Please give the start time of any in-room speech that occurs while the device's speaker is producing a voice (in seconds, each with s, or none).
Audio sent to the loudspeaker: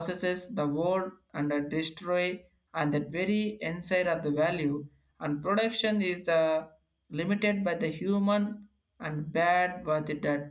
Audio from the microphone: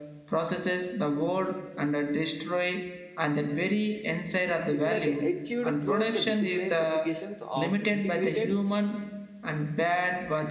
4.7 s